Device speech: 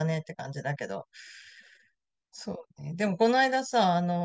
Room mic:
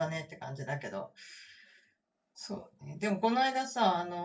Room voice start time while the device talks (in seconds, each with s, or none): none